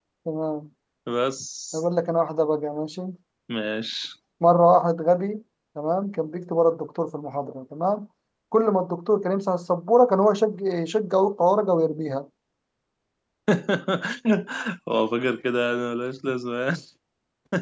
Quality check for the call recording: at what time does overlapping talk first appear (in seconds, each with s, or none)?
none